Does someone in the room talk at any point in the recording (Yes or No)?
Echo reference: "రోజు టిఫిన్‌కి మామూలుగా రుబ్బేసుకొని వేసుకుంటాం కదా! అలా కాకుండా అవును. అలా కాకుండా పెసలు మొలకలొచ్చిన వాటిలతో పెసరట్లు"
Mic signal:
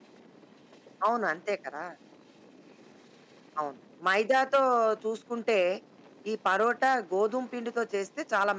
Yes